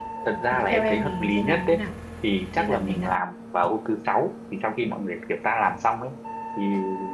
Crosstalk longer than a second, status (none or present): present